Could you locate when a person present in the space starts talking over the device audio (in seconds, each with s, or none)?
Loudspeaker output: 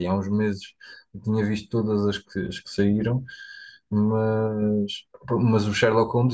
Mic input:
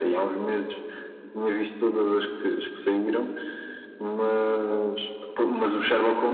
none